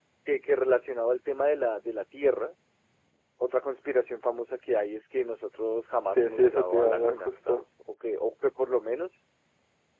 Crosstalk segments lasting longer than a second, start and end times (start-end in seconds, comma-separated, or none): 6.2-7.6